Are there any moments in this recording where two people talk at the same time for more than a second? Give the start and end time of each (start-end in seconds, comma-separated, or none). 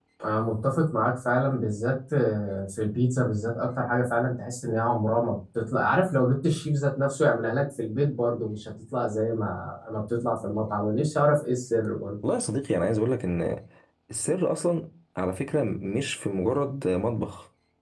none